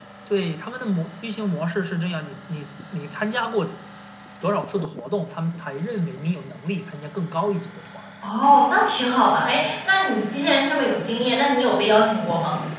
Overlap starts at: none

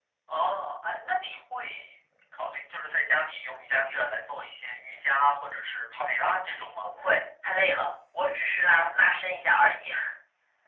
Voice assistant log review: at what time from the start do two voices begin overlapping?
none

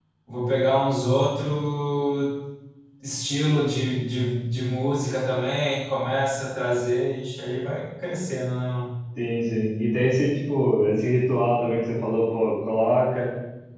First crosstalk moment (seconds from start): none

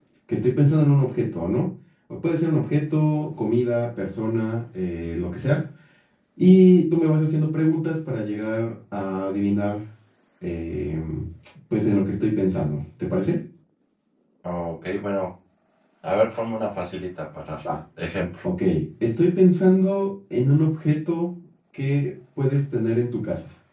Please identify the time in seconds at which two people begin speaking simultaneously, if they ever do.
none

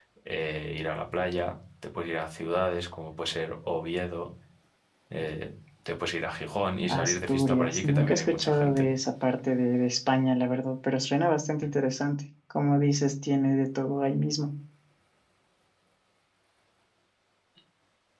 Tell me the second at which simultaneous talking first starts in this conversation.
6.9 s

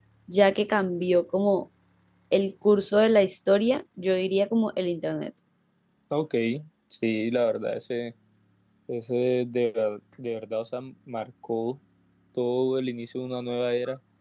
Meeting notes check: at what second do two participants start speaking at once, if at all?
none

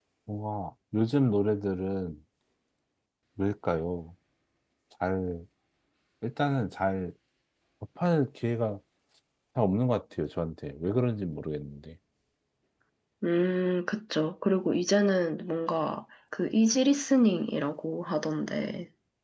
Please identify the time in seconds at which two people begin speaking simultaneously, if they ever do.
none

